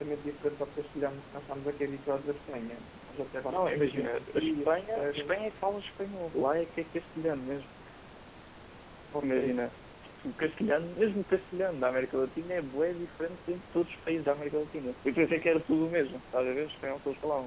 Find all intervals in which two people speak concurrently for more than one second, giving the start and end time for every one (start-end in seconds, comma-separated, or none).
3.5-5.4